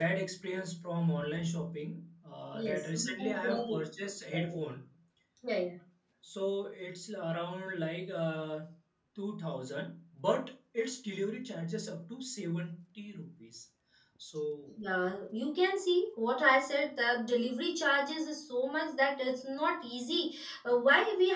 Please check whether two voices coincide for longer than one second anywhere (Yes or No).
Yes